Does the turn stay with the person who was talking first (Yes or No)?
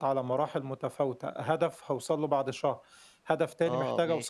Yes